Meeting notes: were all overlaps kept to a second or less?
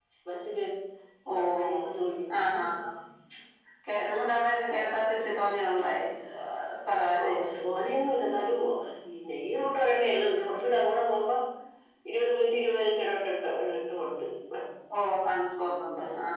Yes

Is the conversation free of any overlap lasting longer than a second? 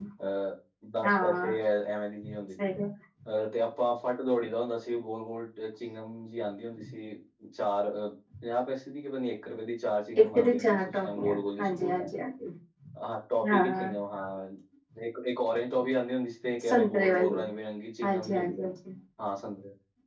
No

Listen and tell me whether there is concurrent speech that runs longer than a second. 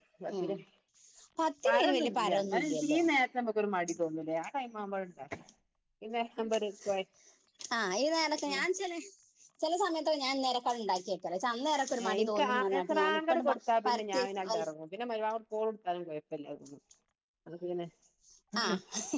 Yes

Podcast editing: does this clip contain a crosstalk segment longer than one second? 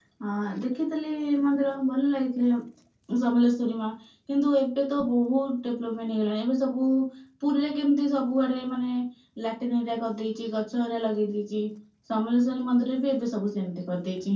No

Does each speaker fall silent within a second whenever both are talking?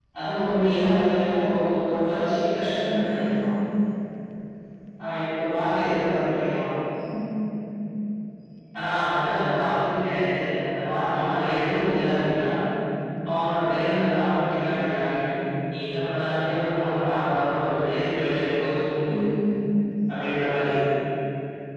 No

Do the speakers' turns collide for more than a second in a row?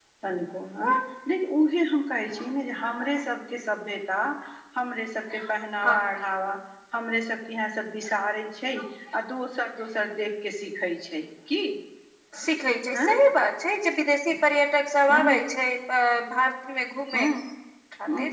No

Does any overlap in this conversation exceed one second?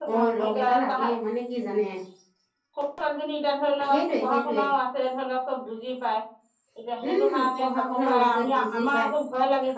Yes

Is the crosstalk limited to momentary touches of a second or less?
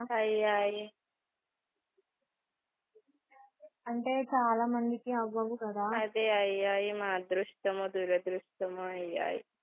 Yes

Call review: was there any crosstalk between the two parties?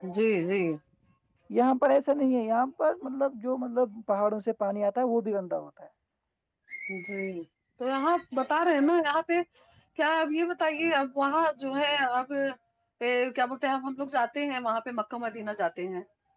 No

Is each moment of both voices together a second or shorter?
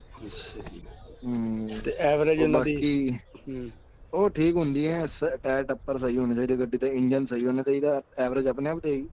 Yes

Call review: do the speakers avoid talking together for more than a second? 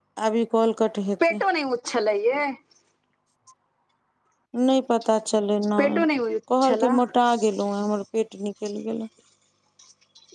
Yes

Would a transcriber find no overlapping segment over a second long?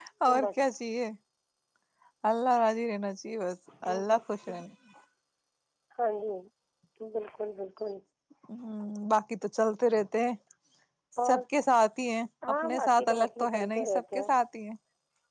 No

